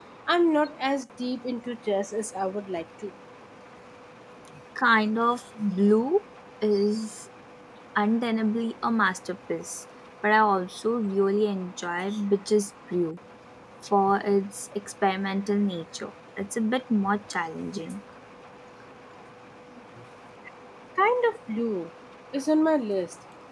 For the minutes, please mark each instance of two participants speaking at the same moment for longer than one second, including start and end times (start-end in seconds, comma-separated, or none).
none